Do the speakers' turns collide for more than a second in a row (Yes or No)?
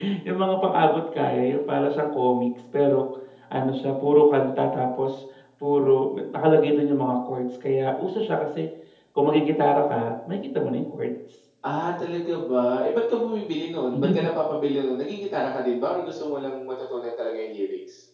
No